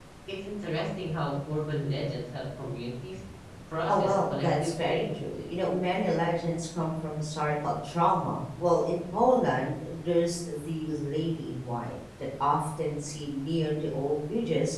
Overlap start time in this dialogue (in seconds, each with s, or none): 3.9 s